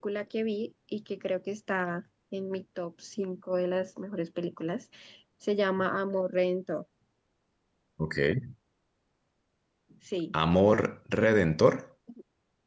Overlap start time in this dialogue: none

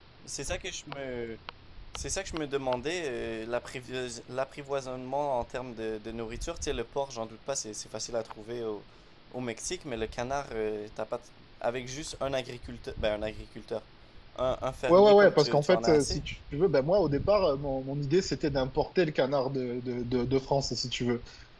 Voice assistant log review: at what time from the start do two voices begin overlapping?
15 s

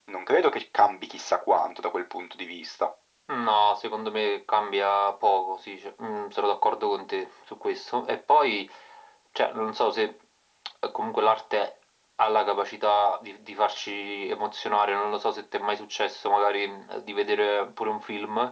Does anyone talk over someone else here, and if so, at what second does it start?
none

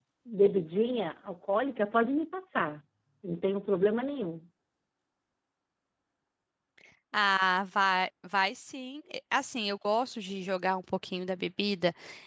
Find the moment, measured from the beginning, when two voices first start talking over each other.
none

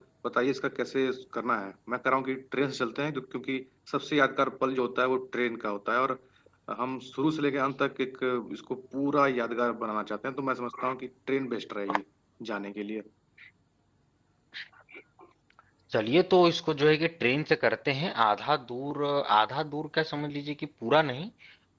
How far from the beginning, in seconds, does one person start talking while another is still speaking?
none

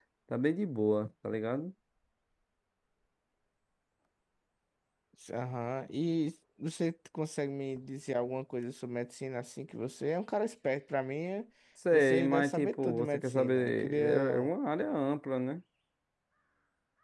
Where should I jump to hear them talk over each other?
12 s

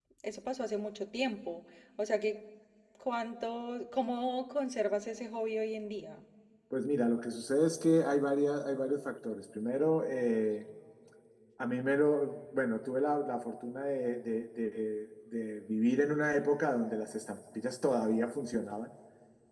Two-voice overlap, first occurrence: none

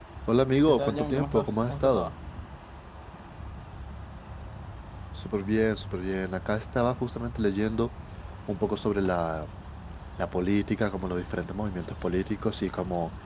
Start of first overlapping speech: 1 s

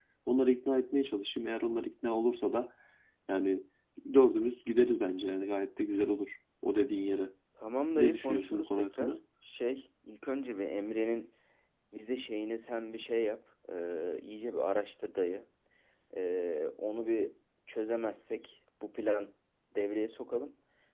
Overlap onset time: 8 s

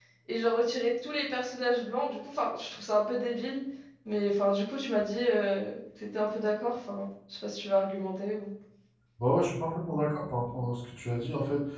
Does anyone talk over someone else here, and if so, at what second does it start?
none

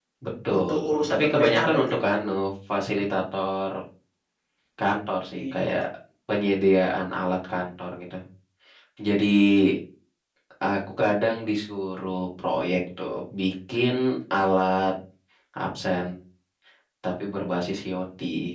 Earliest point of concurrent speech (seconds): 1 s

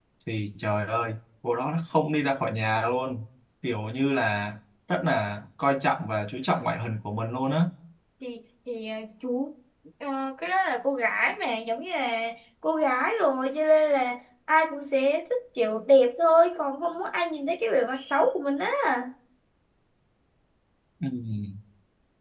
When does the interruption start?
none

